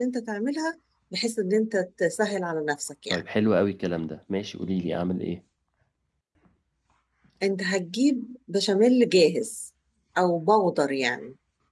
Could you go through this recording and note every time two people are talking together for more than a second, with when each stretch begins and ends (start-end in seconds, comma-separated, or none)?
none